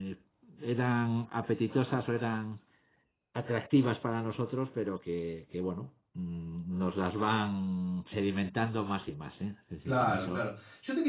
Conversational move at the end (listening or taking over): taking over